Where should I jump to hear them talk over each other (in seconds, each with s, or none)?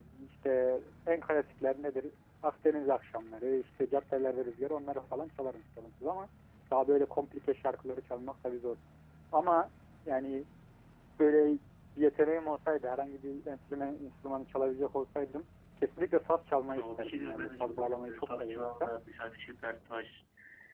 16.8 s